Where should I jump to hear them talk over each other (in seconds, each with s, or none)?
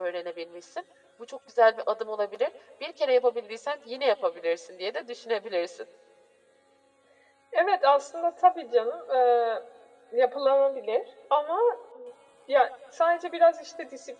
none